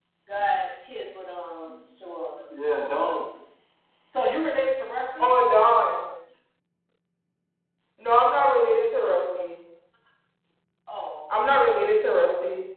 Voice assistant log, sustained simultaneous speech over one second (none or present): none